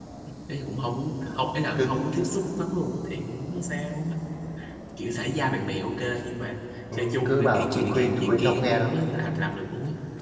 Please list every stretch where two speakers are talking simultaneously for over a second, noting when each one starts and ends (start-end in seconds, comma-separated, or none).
6.9-9.0